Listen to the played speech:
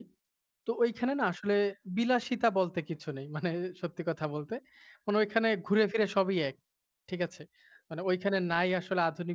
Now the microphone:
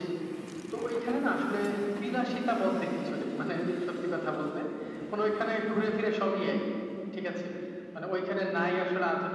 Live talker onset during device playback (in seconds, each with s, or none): none